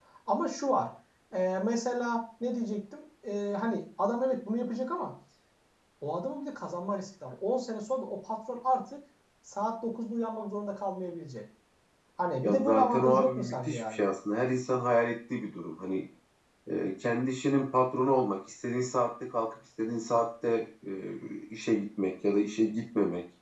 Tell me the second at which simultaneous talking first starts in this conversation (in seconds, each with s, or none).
12.4 s